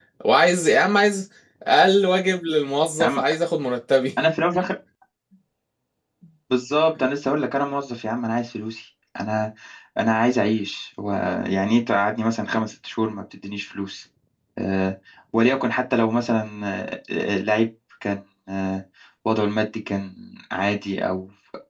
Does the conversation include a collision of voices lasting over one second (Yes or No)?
No